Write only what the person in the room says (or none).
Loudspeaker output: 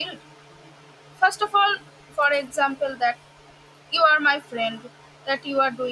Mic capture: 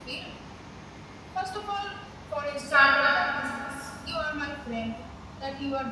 start up a business